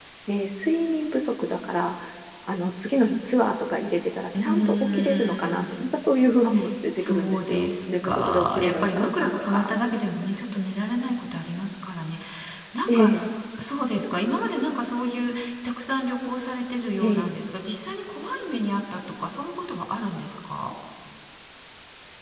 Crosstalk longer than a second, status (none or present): present